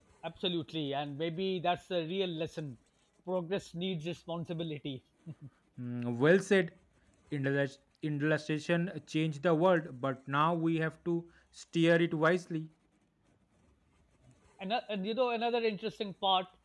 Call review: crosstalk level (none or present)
none